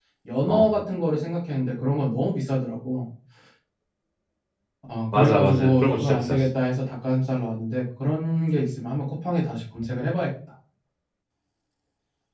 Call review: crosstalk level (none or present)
present